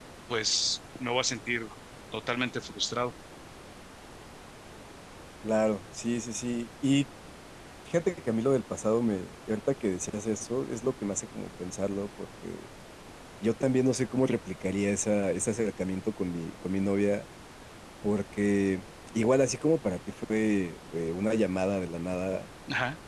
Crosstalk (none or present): none